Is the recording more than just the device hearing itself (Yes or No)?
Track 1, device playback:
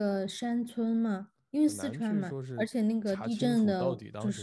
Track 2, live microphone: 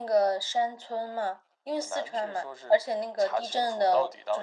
No